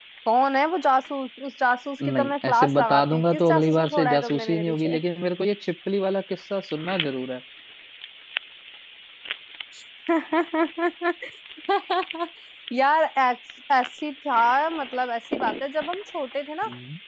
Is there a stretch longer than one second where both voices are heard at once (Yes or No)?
Yes